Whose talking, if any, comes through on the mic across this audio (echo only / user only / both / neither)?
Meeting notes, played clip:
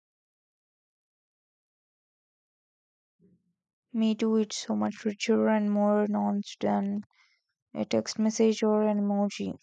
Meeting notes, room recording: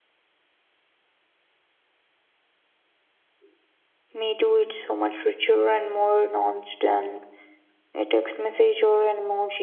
echo only